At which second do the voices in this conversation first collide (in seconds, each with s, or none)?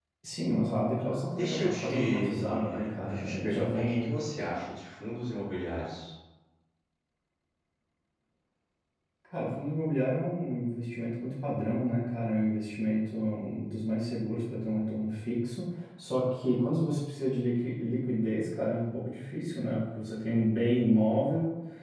1.4 s